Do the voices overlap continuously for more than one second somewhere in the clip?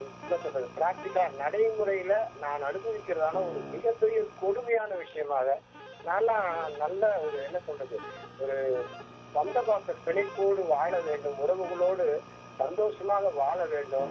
No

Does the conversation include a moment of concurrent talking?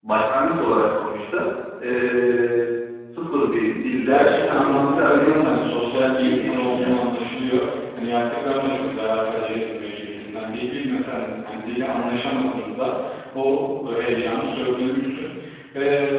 Yes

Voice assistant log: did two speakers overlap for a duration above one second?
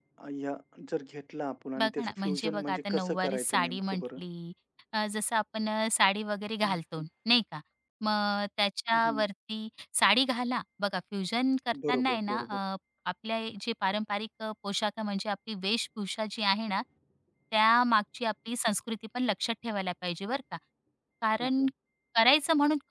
Yes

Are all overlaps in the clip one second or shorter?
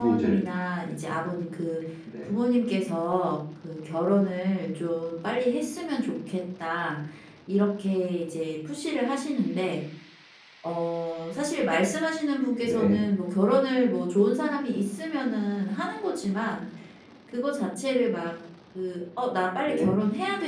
Yes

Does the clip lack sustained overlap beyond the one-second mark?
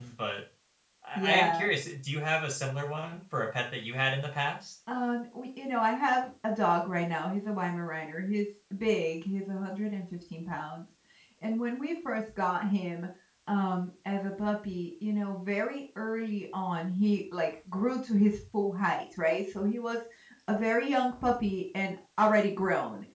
Yes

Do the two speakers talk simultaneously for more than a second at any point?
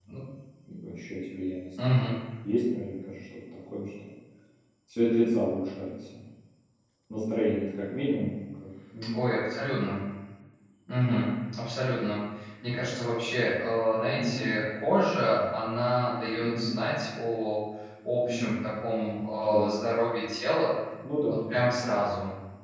No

